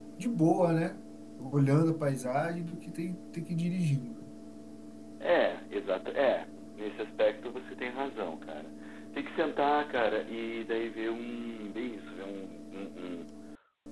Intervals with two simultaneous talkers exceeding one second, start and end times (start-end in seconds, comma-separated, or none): none